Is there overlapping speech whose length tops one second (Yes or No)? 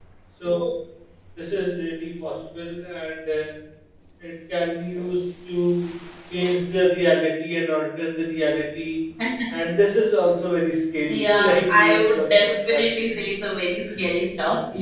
Yes